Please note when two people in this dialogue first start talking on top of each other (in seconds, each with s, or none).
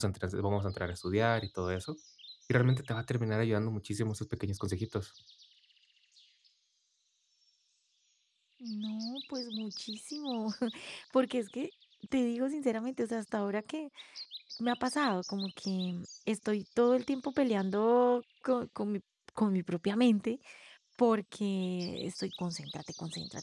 none